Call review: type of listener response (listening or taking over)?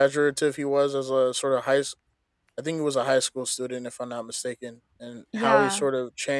listening